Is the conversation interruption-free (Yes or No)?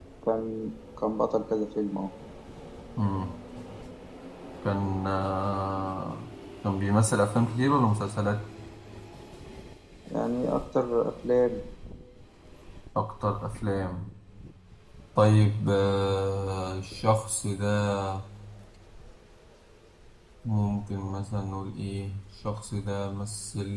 Yes